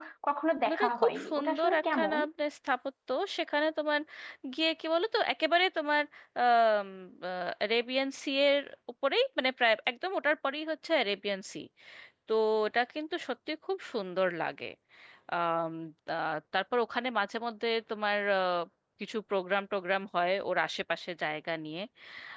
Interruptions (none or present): present